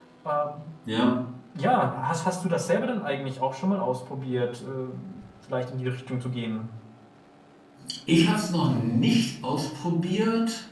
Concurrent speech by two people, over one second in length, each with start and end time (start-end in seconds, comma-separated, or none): none